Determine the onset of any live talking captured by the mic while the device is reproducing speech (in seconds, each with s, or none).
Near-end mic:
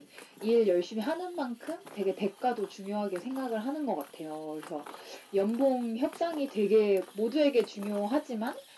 none